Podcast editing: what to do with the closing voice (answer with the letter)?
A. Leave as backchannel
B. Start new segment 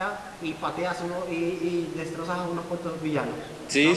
B